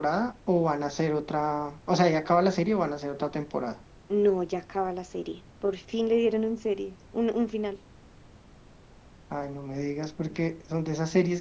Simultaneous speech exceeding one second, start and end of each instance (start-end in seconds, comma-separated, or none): none